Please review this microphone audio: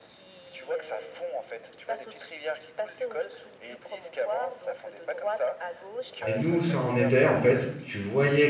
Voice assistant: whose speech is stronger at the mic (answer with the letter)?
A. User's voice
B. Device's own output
A